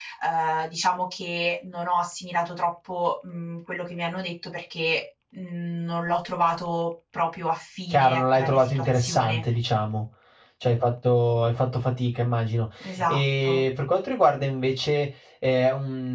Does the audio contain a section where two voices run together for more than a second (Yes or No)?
Yes